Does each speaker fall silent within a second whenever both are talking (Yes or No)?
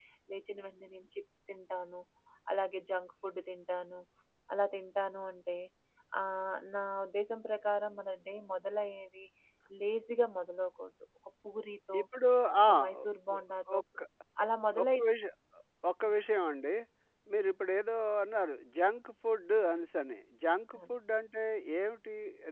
Yes